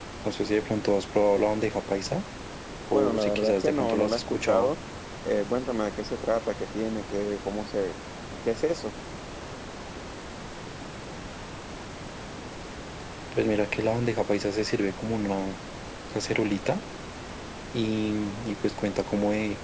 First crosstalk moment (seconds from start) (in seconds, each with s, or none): 2.9 s